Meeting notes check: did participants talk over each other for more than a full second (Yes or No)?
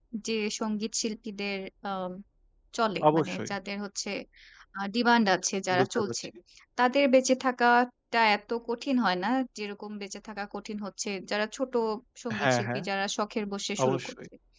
No